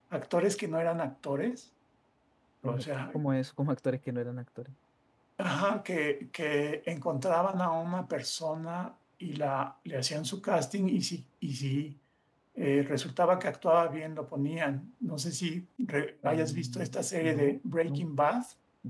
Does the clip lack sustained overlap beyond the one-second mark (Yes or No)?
No